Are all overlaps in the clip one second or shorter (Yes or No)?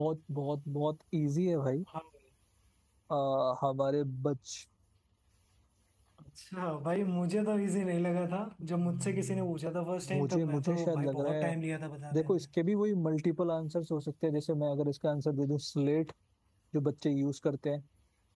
No